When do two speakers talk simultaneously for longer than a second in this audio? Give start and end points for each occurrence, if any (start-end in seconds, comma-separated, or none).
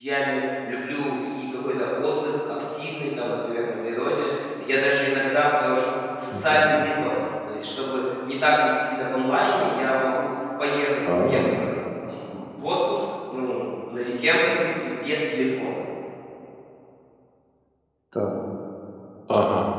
none